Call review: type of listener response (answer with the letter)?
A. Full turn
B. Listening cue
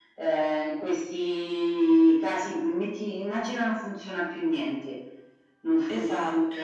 B